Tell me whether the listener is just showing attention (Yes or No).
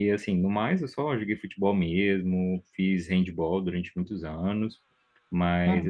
Yes